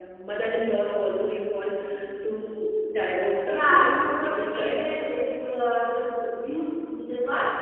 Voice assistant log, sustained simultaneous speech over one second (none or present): present